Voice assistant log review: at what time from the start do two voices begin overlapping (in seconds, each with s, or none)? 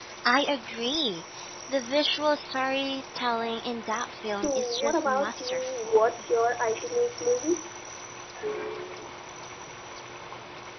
4.2 s